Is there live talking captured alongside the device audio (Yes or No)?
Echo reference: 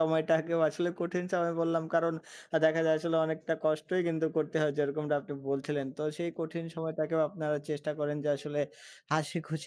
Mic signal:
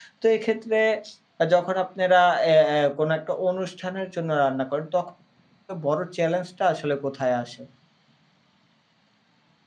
Yes